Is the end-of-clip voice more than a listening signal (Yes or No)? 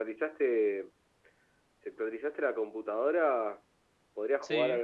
No